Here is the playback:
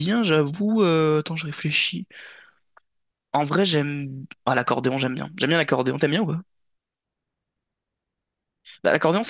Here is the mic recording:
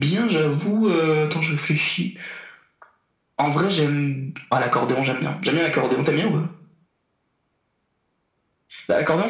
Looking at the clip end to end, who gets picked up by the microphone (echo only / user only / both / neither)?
echo only